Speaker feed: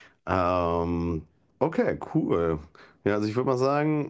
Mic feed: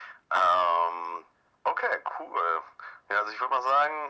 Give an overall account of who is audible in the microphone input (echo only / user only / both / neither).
echo only